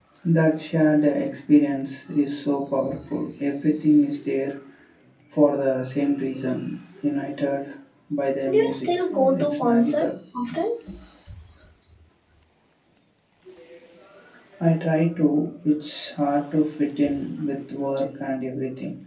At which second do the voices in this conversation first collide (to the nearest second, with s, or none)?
8 s